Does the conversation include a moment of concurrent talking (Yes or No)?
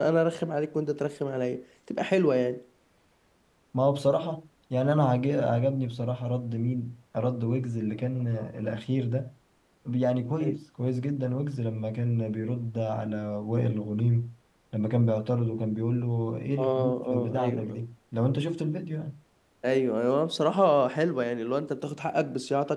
Yes